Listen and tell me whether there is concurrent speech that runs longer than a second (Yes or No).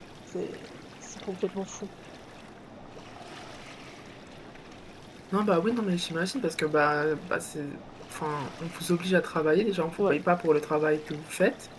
No